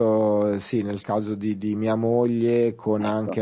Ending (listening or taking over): listening